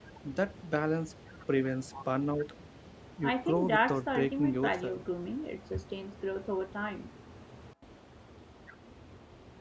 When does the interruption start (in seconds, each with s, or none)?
3.2 s